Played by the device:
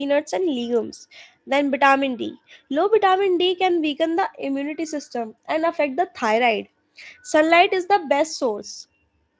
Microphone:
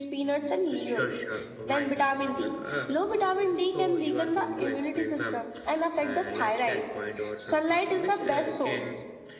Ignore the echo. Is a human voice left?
Yes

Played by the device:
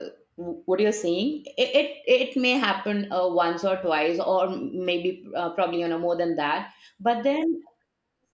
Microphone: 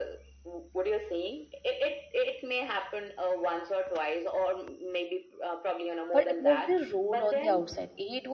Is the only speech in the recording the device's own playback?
No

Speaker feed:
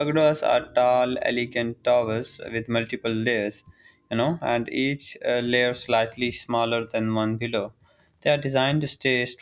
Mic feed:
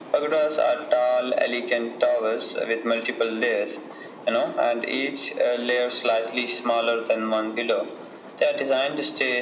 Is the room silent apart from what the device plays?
Yes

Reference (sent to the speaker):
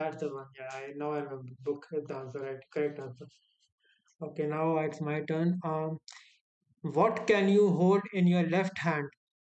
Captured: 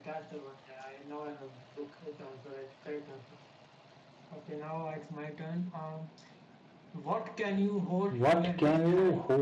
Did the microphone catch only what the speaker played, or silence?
No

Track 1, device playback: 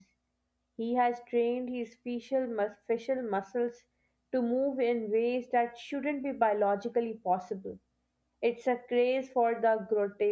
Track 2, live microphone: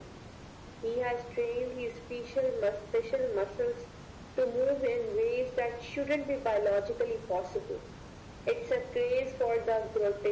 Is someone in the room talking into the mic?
No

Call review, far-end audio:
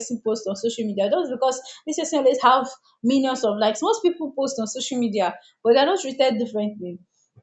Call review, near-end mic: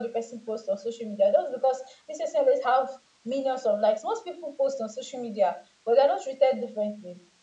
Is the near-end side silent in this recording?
Yes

